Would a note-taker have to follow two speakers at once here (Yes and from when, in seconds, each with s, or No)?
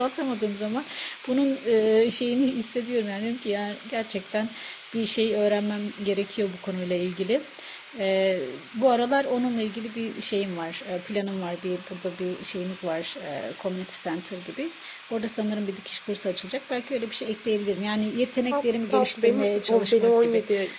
Yes, from 18.5 s